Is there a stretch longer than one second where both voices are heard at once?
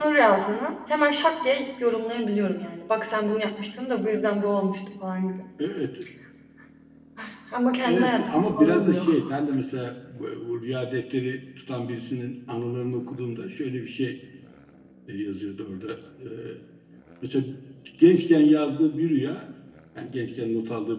Yes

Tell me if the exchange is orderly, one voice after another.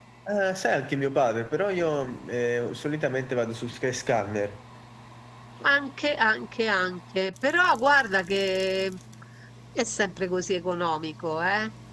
Yes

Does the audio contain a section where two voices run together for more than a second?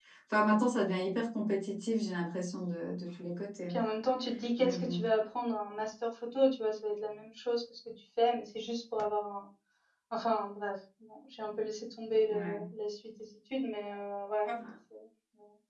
No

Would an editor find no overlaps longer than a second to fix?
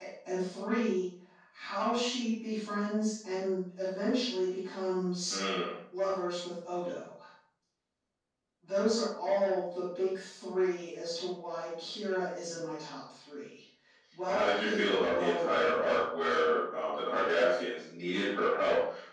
No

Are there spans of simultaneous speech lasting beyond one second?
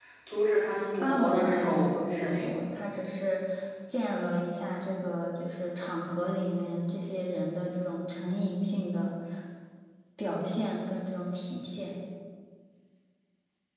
Yes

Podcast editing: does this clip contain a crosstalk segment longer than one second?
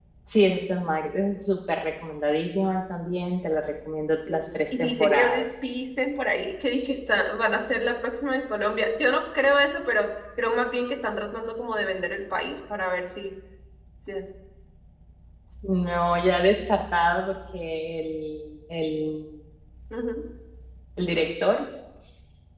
Yes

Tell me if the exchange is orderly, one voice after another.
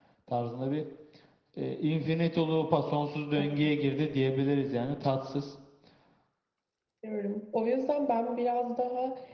Yes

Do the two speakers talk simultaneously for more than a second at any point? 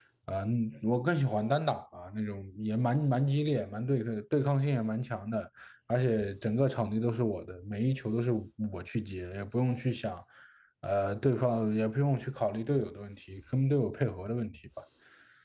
No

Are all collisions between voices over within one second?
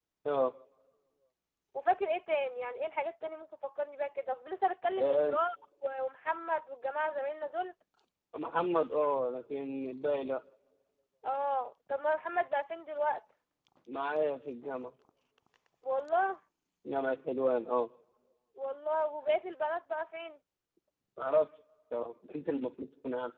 Yes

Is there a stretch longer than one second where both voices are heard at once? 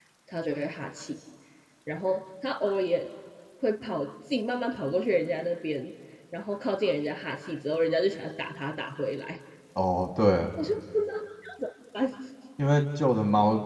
No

